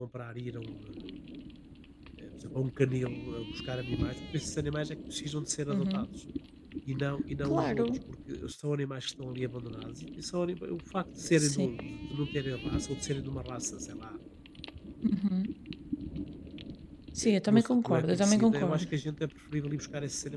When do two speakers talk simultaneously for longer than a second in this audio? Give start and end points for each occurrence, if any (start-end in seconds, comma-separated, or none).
17.2-18.9